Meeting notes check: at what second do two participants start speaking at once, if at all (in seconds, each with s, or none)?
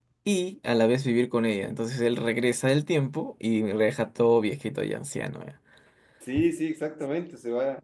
none